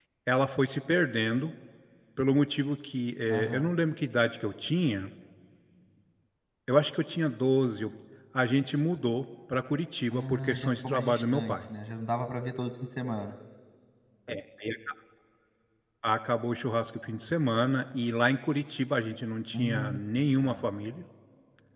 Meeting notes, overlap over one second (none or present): present